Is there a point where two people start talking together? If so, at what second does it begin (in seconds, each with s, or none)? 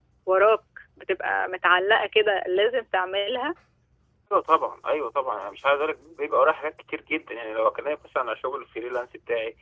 none